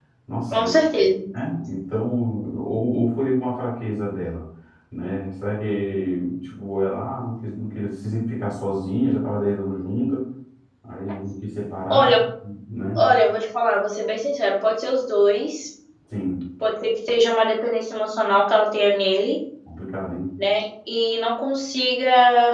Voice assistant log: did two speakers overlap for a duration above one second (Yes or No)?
No